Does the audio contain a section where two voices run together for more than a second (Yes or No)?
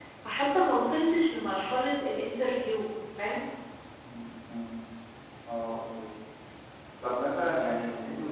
No